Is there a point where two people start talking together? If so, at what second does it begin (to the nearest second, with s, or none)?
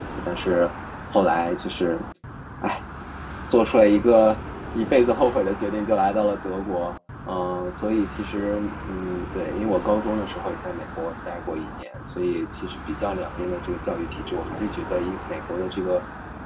none